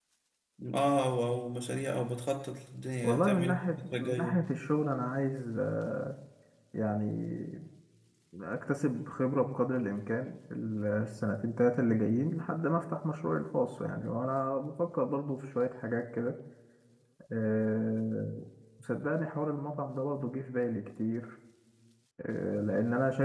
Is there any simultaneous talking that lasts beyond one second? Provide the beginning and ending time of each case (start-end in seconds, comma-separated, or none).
3.0-4.4